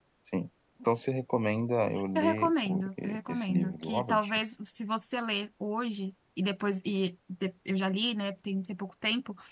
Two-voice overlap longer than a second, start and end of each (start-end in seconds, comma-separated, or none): 2.1-4.2